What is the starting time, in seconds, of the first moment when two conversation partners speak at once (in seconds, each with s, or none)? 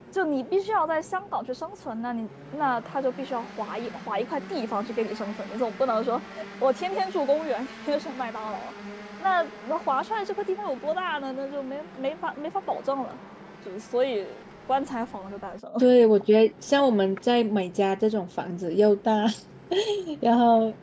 none